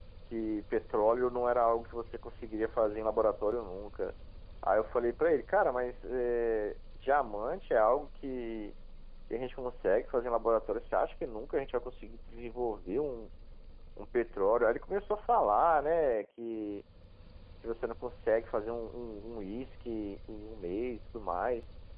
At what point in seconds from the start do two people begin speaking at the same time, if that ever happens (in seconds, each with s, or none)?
none